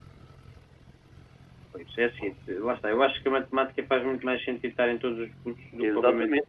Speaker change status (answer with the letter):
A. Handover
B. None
A